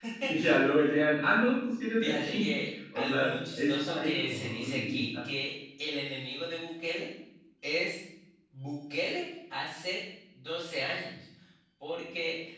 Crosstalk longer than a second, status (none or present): present